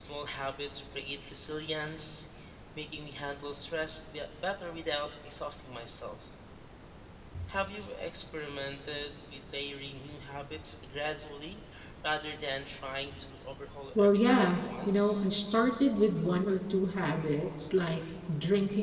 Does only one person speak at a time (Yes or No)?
No